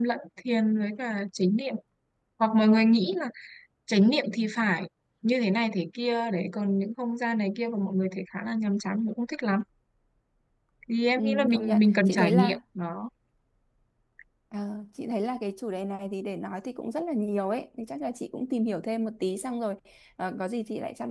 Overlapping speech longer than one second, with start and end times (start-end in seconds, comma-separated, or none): 11.2-12.6